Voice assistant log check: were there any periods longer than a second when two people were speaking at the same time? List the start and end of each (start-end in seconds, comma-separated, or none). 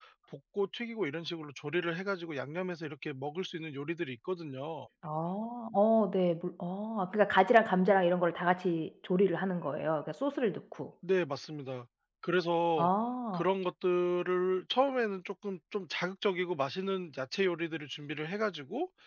none